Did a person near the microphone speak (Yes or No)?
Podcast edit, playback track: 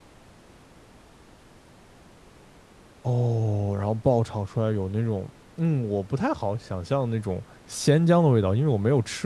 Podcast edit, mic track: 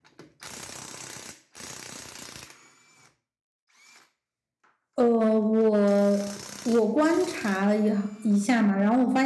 Yes